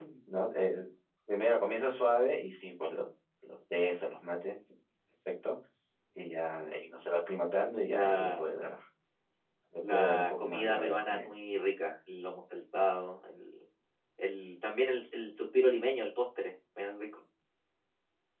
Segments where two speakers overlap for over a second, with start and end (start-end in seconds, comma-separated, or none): 9.9-11.3